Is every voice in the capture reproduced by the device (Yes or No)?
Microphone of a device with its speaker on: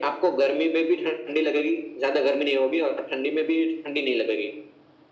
Yes